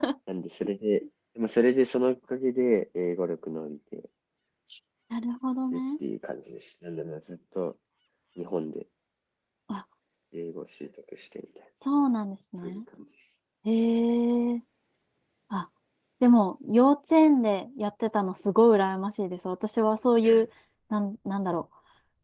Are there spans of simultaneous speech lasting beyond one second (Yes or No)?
No